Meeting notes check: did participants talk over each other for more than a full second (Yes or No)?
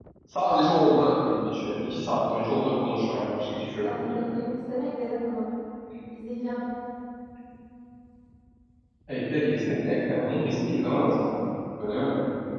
No